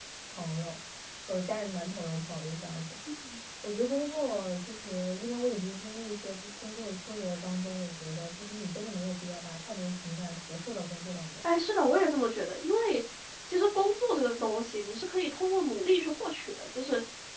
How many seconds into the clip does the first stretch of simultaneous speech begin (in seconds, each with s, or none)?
none